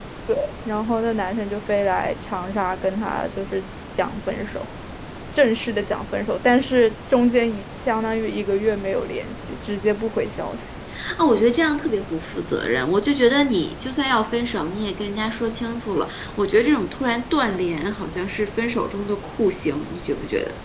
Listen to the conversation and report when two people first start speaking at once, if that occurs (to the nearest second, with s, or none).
none